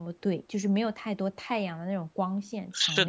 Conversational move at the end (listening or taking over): taking over